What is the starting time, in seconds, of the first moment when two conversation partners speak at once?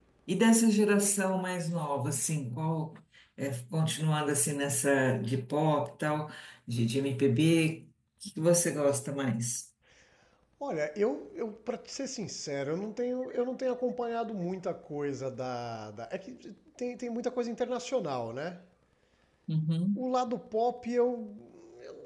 none

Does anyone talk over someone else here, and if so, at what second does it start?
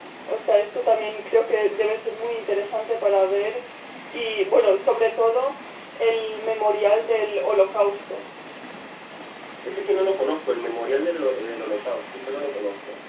none

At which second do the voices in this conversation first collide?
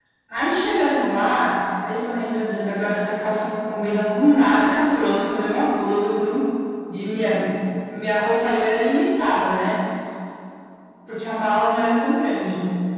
none

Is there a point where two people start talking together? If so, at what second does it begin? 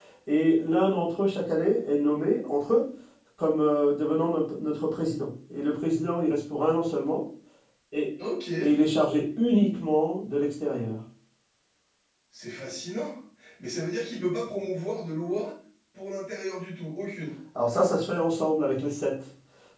none

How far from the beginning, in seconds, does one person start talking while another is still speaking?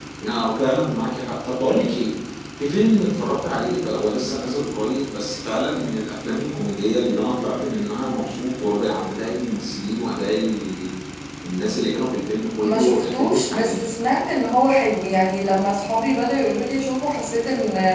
12.6 s

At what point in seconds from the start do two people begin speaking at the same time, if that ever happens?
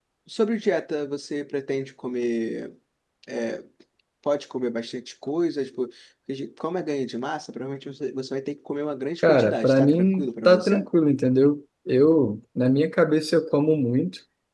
9.2 s

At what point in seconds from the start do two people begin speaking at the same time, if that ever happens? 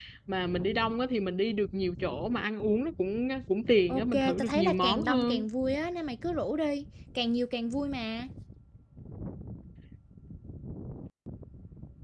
3.9 s

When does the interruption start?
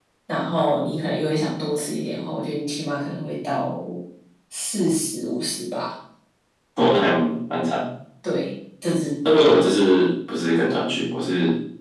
none

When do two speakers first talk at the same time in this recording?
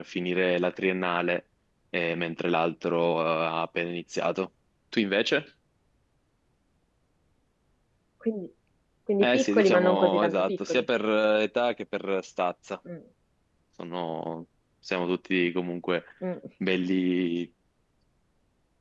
9.2 s

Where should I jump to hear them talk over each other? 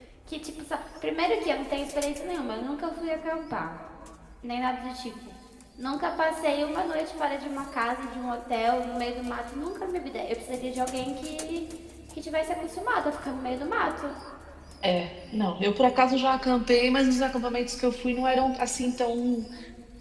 none

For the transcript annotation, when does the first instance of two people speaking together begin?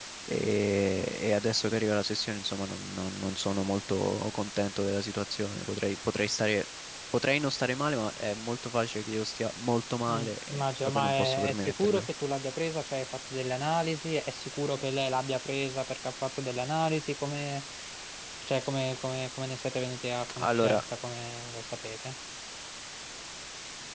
10.1 s

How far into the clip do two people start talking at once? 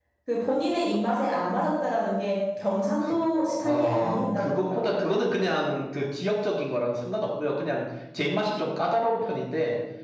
3.6 s

